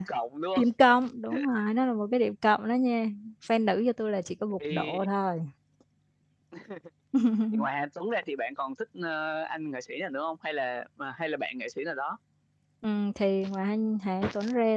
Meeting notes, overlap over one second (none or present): none